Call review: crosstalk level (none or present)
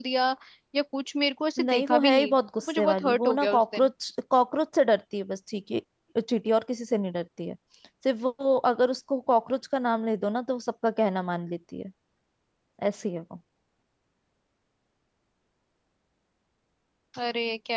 present